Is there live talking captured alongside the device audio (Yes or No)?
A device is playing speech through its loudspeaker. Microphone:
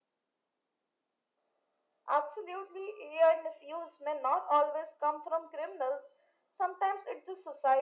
No